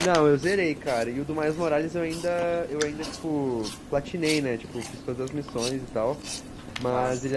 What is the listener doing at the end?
listening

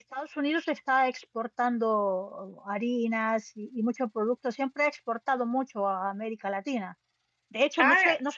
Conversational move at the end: listening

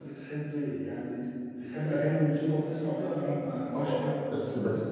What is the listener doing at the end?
taking over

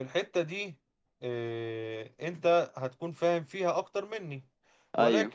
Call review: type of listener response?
listening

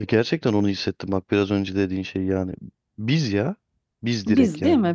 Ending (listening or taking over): taking over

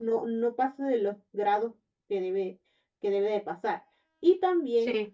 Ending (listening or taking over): listening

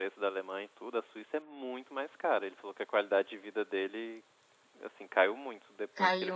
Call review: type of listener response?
listening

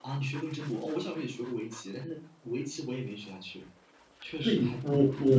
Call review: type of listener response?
taking over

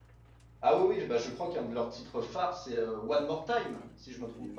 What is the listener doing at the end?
taking over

